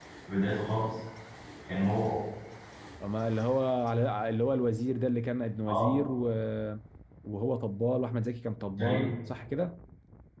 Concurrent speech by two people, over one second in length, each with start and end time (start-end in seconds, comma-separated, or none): none